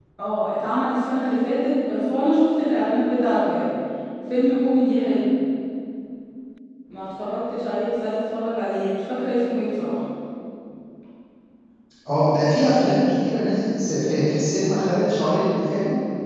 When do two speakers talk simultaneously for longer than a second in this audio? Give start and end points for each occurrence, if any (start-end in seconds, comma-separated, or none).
none